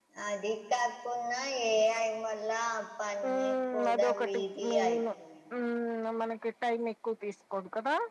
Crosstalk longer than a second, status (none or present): present